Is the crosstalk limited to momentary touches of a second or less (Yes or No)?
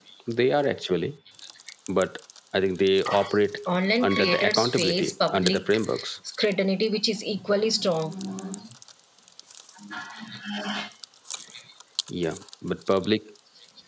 No